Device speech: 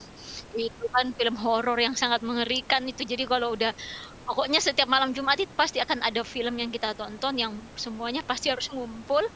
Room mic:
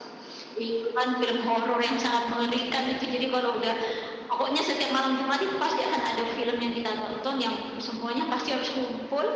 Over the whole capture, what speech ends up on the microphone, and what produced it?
echo only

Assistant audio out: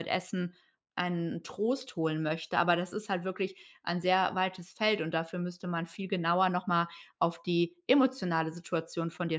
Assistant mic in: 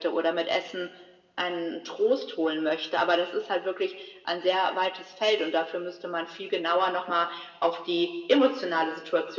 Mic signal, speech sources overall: echo only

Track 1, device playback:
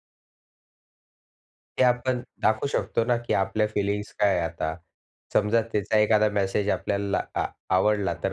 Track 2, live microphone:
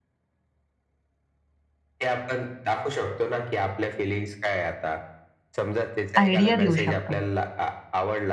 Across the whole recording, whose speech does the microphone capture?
both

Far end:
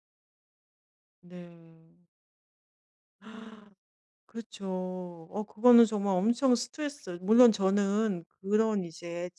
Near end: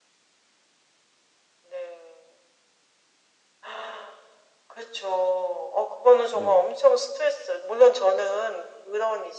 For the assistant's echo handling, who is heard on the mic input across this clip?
both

